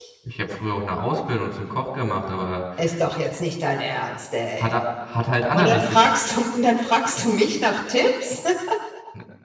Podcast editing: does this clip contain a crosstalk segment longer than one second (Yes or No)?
No